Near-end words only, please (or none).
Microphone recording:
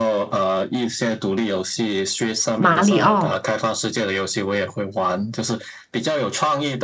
马里奥，